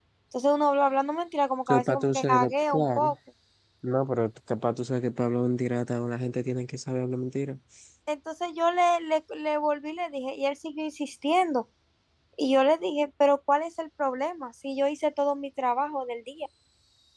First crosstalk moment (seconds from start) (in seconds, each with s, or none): 1.7 s